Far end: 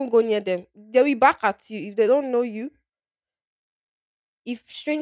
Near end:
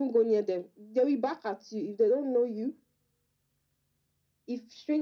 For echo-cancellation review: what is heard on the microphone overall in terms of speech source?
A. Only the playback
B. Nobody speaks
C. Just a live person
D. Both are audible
A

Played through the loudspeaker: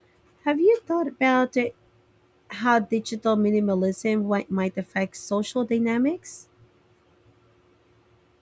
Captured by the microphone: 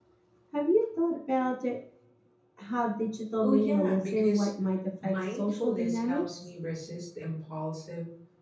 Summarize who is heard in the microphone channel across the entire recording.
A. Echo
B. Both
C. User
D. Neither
B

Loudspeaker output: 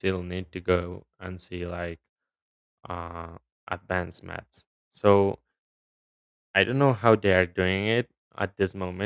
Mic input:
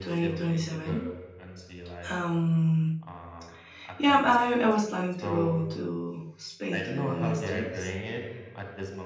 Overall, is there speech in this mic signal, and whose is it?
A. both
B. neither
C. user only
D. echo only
A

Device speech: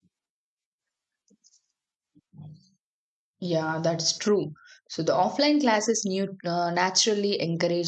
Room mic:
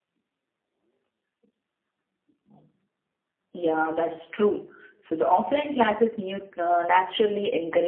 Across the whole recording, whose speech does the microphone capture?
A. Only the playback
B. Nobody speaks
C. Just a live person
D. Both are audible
A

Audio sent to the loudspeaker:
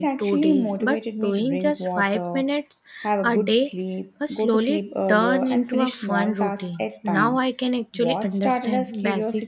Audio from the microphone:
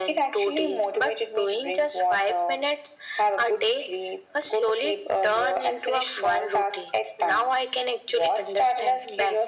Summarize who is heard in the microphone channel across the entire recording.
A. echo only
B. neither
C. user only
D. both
A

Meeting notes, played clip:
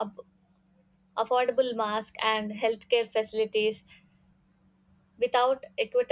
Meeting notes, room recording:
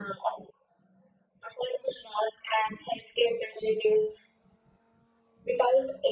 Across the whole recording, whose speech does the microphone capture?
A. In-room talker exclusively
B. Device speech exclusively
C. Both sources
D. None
B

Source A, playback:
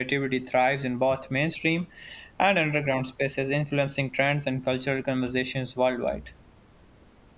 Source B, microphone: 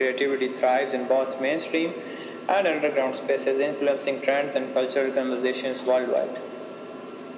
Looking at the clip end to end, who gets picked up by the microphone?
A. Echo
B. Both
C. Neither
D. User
A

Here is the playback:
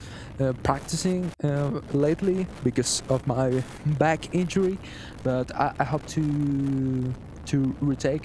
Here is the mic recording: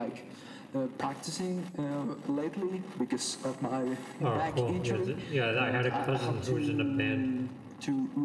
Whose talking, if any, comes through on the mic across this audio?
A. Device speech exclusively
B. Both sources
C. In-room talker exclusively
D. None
B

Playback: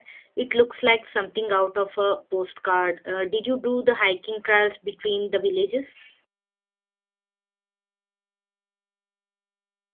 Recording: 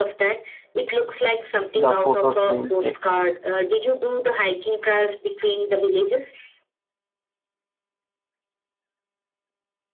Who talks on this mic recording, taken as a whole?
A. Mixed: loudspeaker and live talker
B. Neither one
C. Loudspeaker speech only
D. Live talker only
A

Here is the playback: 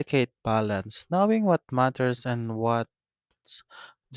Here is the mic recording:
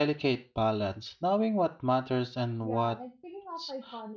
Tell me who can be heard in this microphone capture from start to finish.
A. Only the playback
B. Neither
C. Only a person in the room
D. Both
D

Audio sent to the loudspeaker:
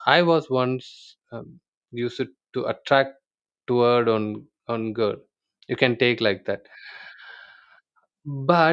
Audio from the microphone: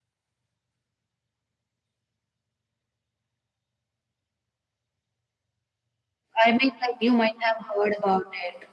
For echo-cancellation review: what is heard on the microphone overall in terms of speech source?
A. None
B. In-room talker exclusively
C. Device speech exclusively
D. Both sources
B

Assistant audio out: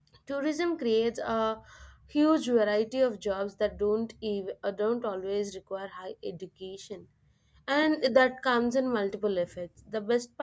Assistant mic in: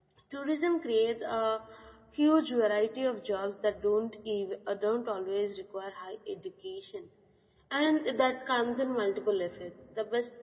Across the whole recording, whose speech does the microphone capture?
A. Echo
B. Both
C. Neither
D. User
A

